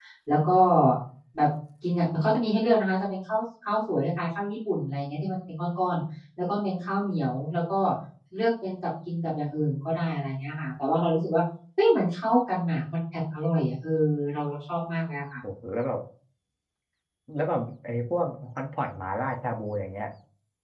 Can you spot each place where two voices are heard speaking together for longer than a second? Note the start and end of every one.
none

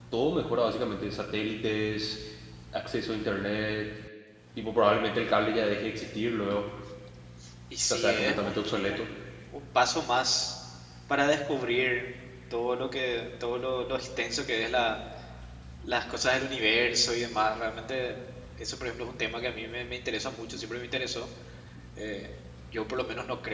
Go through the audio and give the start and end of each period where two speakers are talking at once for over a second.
7.9-9.1

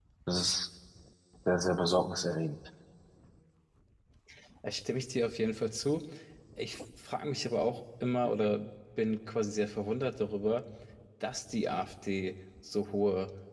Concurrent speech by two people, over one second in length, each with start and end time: none

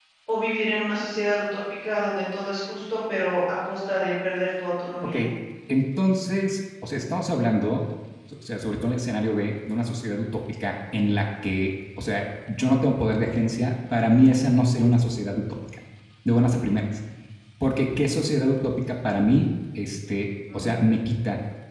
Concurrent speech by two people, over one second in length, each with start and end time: none

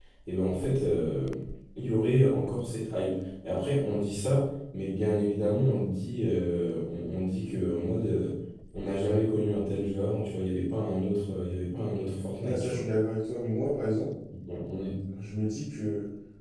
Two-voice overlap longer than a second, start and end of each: none

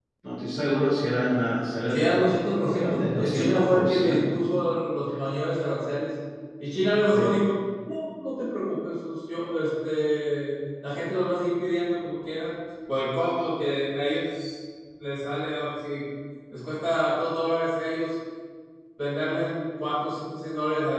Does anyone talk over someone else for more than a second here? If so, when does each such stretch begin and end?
1.9-4.4

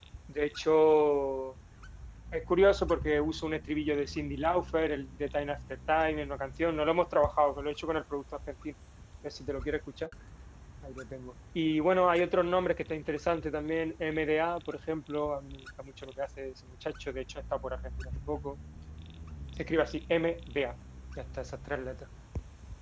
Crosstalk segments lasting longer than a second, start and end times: none

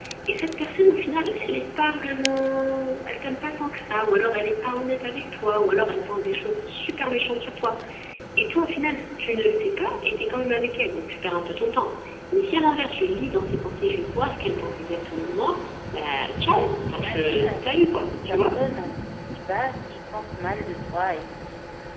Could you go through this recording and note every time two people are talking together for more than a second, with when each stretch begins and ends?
16.4-18.5

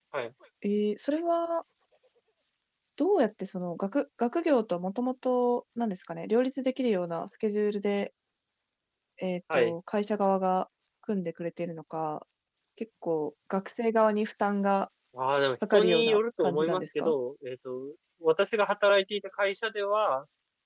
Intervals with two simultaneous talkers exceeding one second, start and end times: 15.7-17.1

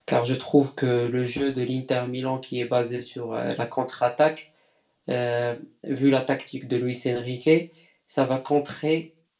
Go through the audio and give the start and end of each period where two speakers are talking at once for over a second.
none

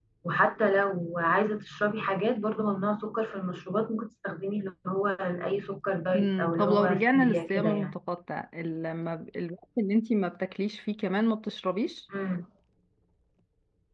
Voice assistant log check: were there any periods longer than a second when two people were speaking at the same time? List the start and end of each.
6.2-7.9

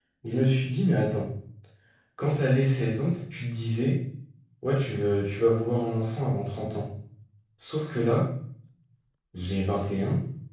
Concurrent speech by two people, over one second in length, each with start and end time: none

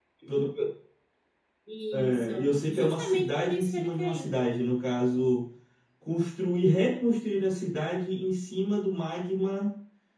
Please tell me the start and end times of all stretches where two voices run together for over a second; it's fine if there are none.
1.9-4.3

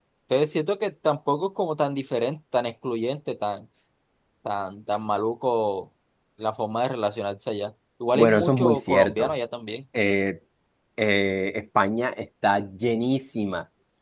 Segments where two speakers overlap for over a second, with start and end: 8.1-9.3

